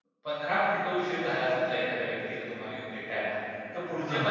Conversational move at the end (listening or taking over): listening